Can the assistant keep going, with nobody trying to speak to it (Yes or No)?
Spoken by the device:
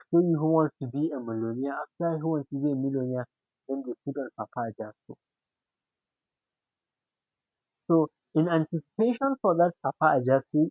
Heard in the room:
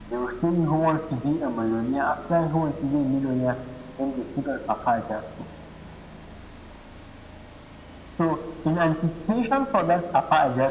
Yes